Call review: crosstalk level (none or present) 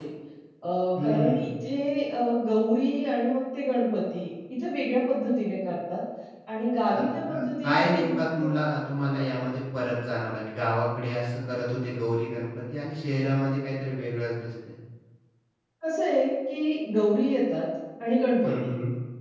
present